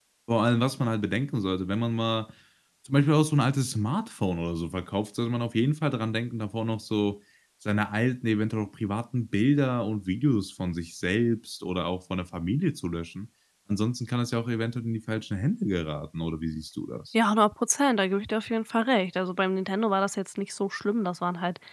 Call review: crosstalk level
none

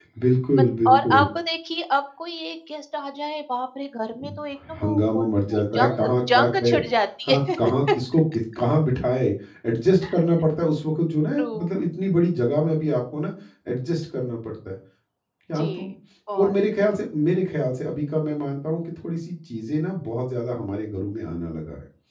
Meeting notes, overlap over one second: present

